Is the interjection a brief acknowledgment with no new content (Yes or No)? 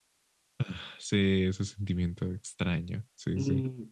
No